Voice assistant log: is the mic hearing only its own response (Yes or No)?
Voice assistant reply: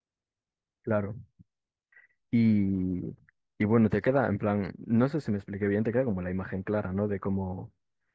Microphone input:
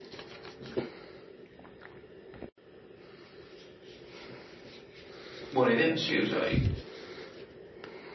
No